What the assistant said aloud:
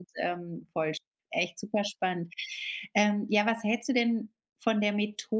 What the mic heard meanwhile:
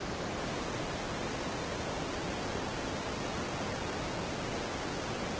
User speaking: No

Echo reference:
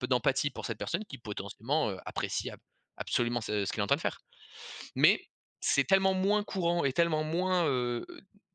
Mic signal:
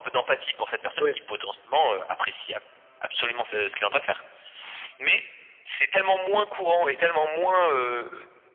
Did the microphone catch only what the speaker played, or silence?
No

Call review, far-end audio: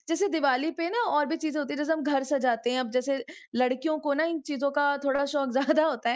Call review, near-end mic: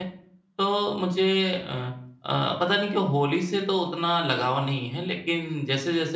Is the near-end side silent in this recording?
No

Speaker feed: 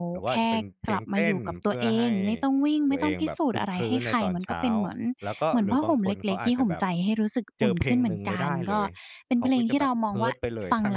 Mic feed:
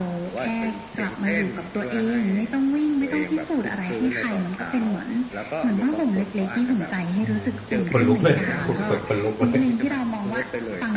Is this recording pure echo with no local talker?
No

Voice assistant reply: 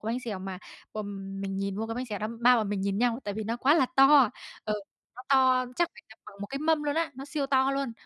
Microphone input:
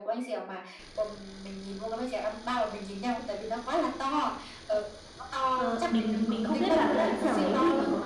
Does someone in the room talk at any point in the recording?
Yes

